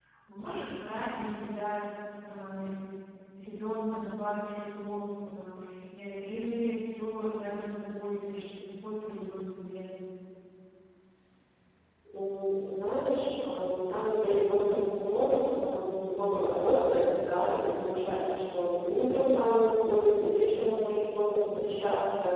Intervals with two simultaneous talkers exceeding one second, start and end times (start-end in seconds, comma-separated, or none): none